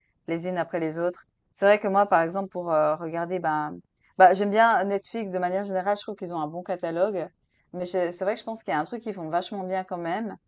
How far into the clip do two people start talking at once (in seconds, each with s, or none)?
none